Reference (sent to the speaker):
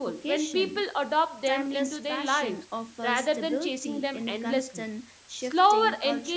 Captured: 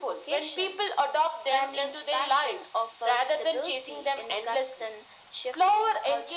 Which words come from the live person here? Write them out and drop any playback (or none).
none